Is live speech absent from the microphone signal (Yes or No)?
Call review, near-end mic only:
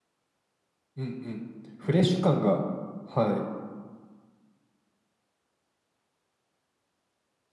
No